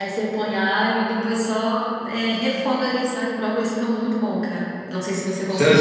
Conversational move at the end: taking over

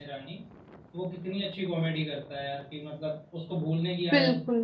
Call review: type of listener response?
listening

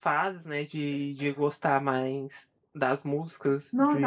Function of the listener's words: taking over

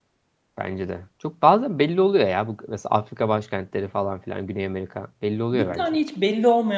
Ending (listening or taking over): taking over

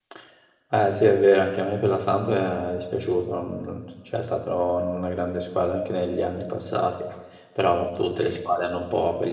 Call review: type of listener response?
listening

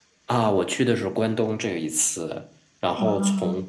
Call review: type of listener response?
listening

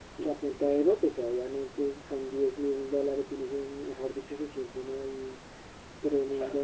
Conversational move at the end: listening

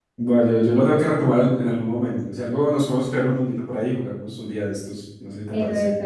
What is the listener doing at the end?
taking over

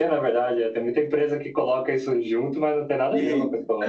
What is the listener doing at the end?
taking over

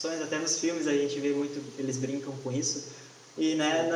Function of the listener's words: listening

